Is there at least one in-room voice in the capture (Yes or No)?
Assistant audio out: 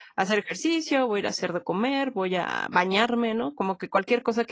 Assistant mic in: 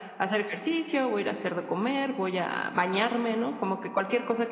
No